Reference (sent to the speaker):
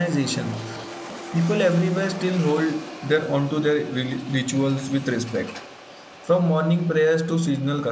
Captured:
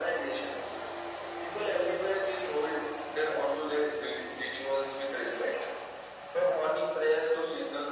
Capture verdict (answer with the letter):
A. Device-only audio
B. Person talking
A